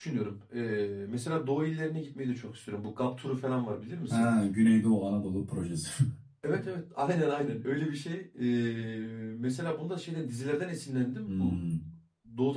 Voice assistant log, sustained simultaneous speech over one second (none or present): none